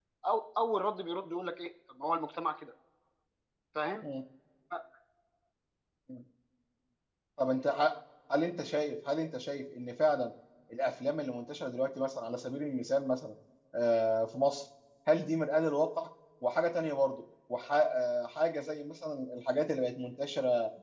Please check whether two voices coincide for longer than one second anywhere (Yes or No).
No